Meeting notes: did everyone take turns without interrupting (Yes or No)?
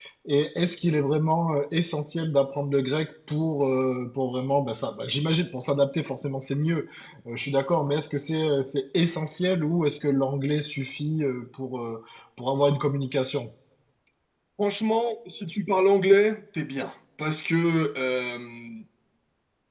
Yes